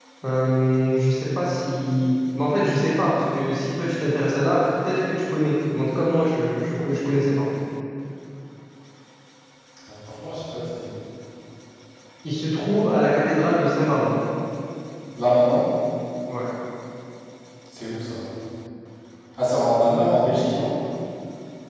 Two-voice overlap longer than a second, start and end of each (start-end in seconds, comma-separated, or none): none